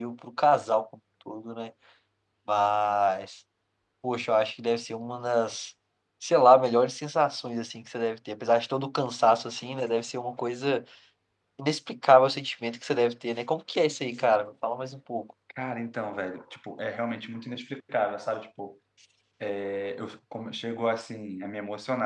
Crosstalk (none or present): none